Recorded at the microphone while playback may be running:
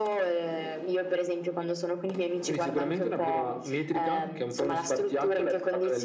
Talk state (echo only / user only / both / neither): echo only